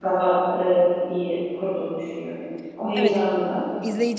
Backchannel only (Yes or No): No